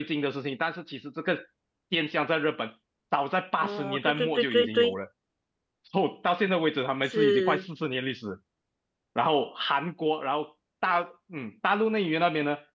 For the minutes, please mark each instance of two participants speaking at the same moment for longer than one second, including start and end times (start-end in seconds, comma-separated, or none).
3.6-4.9